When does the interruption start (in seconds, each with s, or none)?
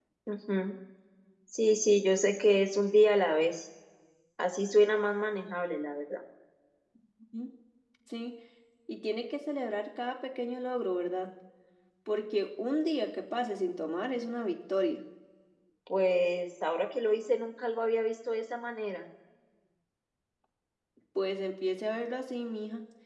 none